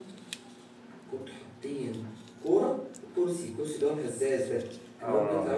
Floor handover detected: No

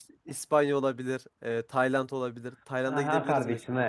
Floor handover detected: Yes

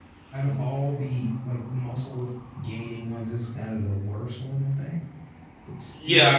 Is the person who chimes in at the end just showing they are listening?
No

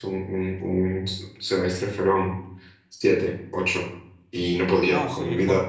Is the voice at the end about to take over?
Yes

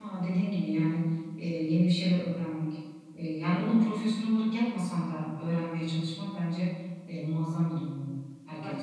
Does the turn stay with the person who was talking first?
No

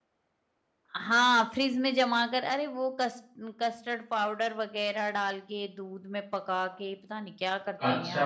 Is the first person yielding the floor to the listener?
Yes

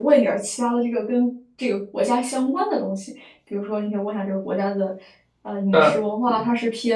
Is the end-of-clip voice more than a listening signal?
No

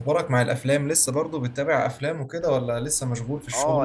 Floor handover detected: Yes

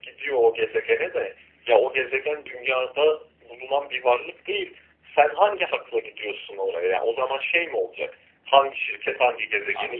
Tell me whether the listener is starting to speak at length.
Yes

